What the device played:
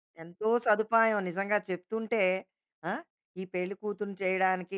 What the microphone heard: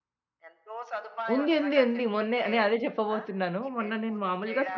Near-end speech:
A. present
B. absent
A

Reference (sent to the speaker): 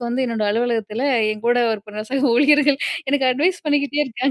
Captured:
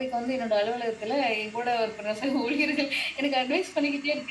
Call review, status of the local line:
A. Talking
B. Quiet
B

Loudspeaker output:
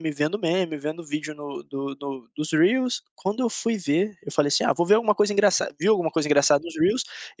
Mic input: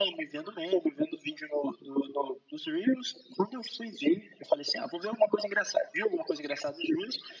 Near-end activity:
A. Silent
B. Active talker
A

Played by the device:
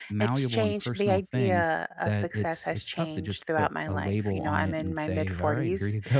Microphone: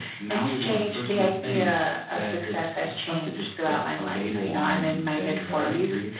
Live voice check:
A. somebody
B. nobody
B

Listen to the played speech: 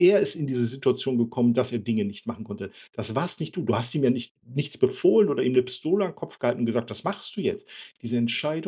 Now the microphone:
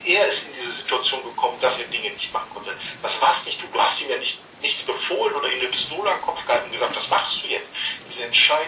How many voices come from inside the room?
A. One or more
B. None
B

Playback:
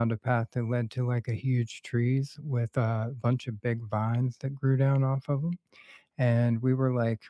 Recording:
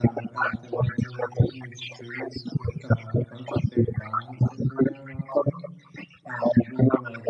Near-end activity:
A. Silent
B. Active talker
A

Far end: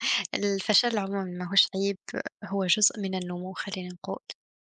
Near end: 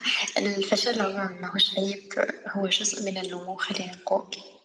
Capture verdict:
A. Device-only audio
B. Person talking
A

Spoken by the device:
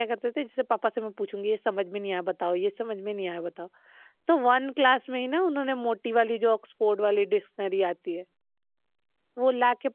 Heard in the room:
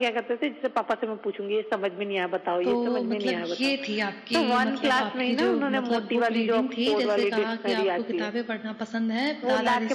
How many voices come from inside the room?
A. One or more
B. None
A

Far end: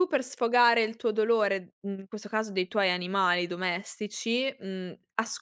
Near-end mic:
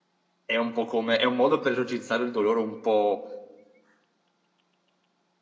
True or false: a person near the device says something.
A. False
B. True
B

